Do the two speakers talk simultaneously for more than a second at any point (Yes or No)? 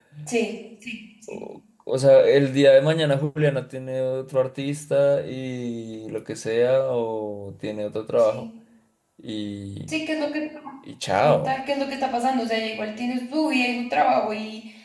No